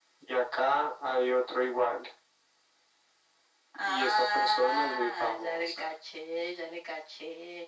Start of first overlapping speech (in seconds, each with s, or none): 3.8 s